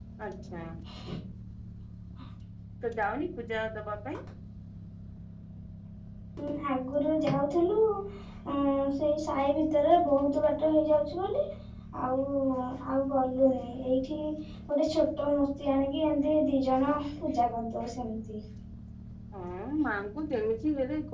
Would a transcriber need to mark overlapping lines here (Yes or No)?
No